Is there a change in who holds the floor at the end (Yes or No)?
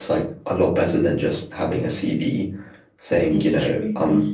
No